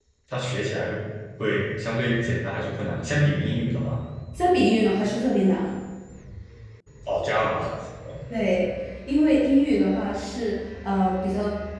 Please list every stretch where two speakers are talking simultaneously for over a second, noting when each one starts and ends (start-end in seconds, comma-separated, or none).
none